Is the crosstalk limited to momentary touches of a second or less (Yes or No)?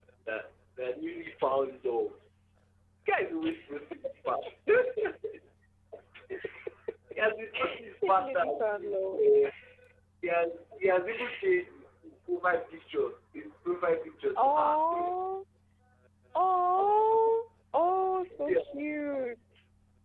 No